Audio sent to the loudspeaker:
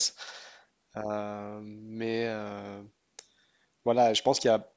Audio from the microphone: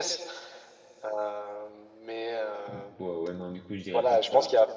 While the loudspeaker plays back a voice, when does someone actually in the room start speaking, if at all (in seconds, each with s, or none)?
2.7 s